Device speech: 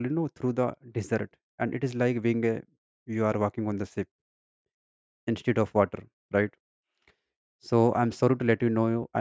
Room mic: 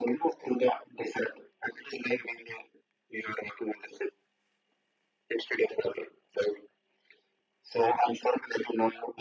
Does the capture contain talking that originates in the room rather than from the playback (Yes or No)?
No